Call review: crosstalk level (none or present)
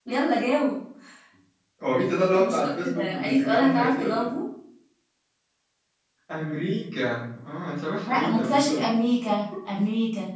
present